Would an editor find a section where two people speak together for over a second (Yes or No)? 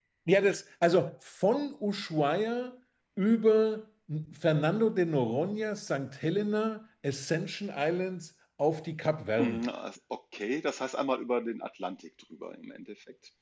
No